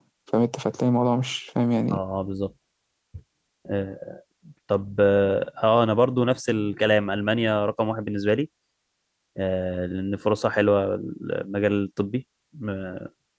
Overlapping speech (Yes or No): No